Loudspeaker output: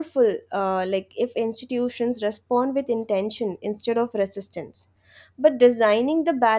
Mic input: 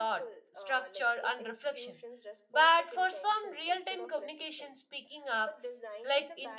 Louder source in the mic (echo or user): user